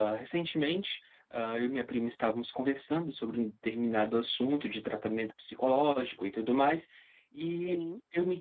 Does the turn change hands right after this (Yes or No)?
No